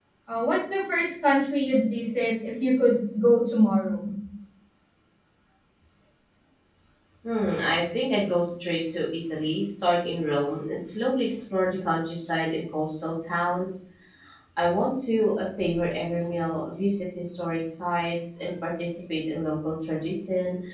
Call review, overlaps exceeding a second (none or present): none